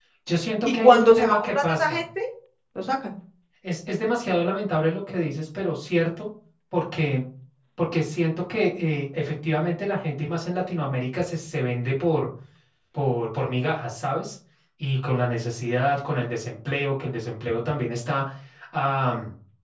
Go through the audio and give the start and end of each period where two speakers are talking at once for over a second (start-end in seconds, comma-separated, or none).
0.7-2.0